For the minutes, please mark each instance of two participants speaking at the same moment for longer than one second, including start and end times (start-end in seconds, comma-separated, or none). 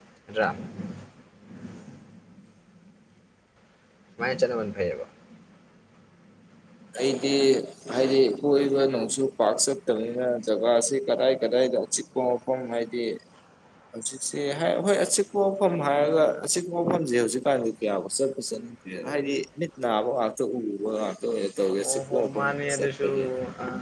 21.8-23.1